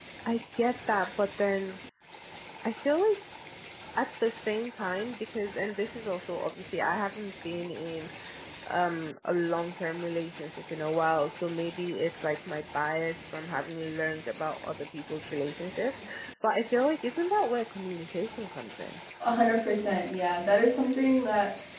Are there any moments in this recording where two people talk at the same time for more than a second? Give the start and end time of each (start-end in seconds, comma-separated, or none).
none